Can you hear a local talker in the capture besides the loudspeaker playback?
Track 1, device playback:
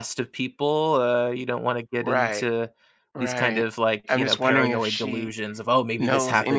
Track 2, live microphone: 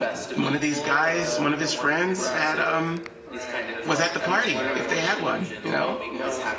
Yes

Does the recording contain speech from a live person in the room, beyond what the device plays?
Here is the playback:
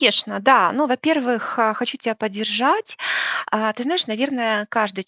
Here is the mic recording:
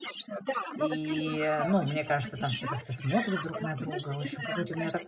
Yes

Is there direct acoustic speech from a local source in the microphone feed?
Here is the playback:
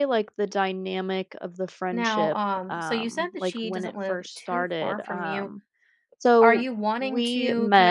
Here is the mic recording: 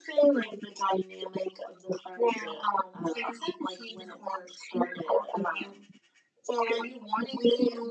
No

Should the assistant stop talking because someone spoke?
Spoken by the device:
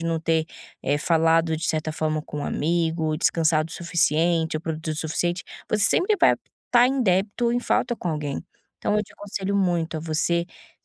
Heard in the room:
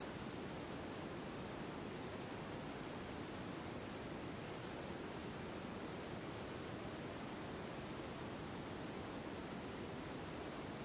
No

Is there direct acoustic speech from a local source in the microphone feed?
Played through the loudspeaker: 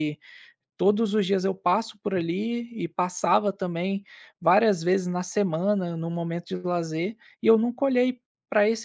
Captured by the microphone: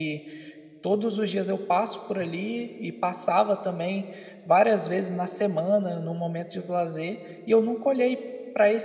No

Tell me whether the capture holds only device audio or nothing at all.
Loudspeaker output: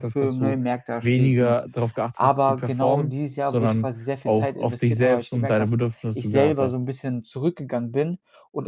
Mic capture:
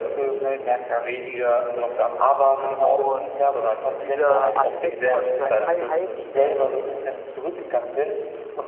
No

